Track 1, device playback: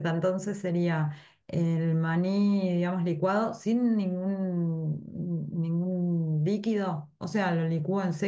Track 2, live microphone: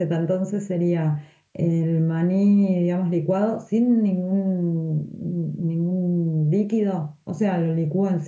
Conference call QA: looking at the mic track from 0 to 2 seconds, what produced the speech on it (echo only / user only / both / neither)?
echo only